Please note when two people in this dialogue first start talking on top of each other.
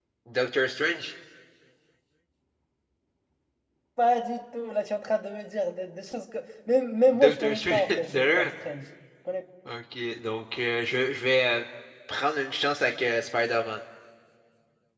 7.1 s

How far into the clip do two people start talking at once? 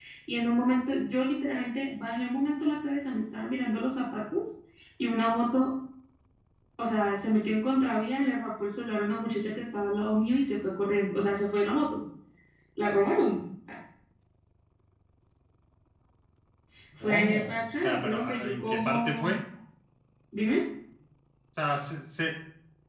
17.0 s

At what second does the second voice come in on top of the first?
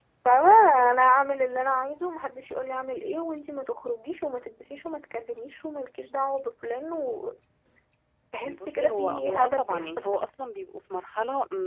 8.4 s

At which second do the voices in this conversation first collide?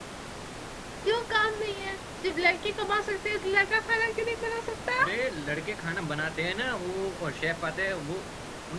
none

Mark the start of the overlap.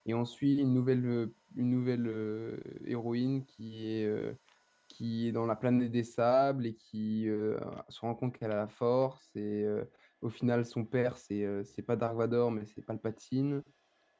none

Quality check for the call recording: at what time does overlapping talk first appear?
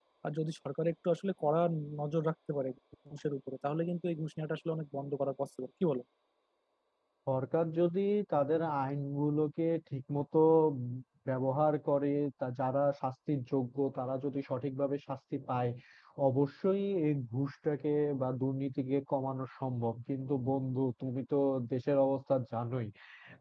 none

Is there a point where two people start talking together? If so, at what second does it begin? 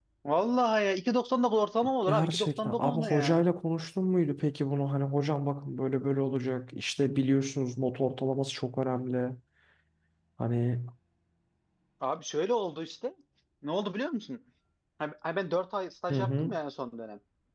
2.0 s

